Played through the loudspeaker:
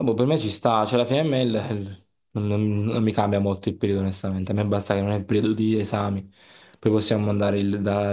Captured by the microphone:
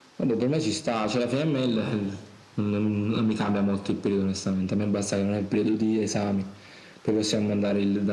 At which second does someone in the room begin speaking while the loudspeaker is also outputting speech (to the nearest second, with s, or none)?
none